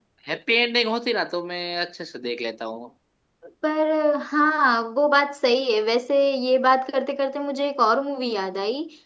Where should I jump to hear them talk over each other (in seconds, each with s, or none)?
none